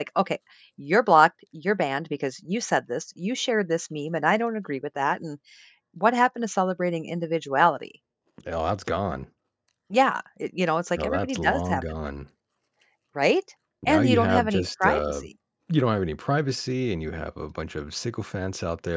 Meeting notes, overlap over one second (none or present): present